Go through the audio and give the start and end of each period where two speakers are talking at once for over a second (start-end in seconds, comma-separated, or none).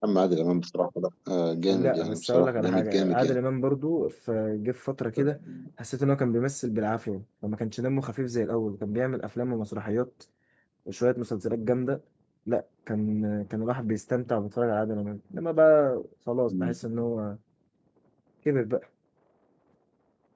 1.7-3.4